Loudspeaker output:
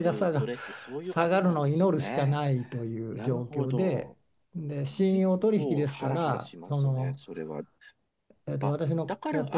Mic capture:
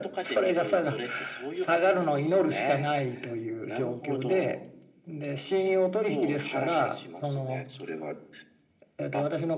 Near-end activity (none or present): none